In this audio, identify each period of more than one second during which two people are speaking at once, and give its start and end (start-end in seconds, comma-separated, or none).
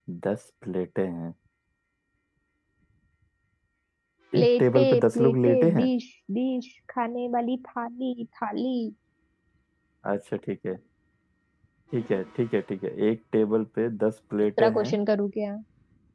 4.4-5.9